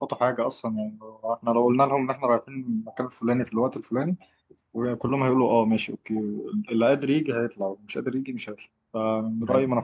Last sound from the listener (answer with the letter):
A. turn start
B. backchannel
A